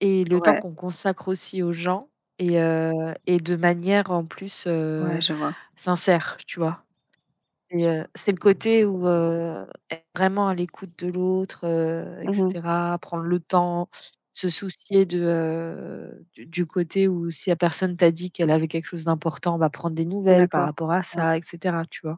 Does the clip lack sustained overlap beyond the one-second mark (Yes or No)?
Yes